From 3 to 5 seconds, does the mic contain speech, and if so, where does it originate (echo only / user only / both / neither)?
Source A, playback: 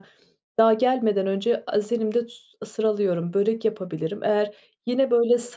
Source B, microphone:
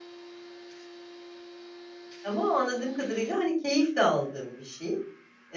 user only